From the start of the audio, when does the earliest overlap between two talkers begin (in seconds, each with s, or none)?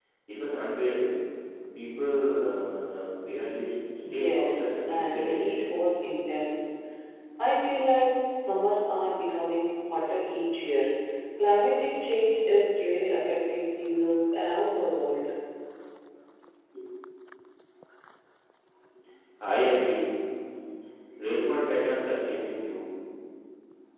4.0 s